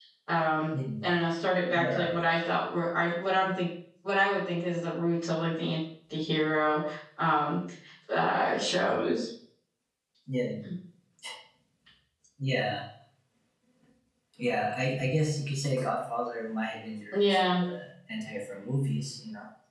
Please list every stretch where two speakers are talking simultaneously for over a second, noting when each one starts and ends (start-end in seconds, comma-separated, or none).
none